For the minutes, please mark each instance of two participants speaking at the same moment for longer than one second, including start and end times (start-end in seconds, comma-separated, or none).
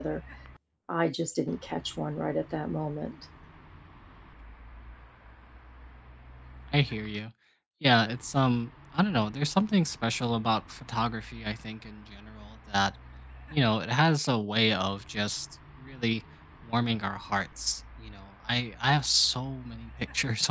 none